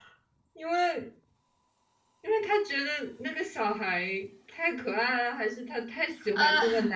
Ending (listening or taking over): listening